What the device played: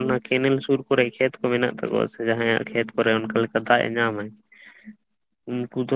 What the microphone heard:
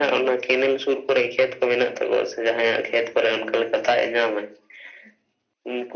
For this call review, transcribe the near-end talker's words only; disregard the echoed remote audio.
none

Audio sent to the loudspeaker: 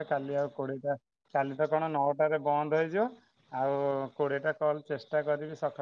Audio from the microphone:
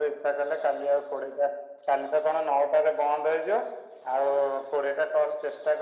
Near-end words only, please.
none

